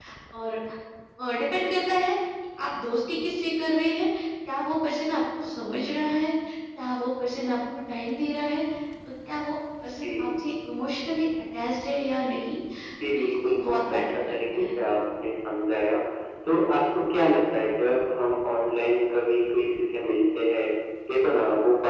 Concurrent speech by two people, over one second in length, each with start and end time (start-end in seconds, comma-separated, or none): 13.1-14.7